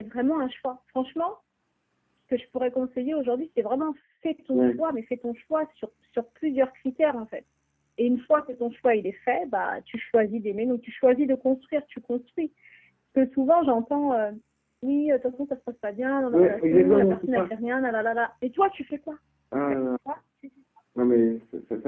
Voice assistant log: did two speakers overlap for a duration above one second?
Yes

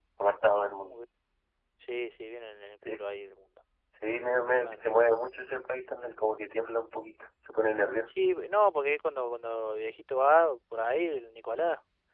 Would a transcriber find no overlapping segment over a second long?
Yes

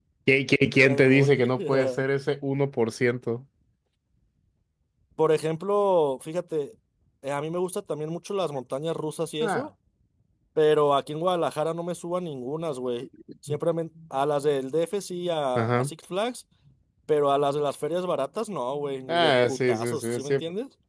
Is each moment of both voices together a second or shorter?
No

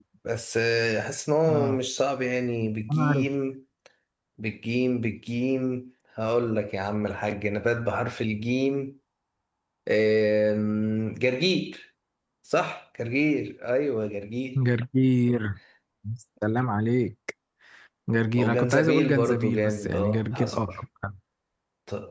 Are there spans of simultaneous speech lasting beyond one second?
Yes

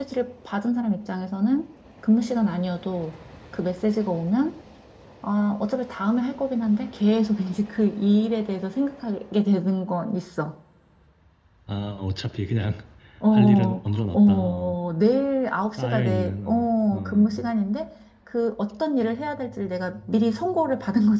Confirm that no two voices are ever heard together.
No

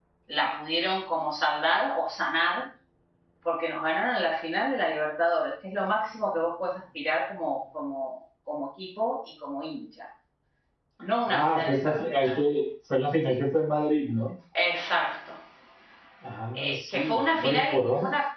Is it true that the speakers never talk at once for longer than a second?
No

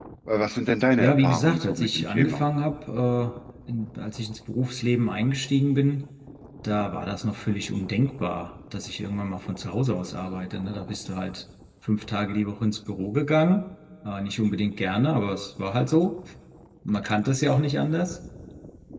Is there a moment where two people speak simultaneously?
Yes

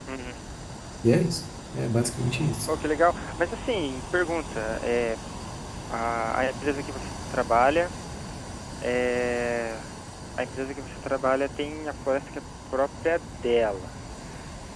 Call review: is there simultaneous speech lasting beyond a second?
No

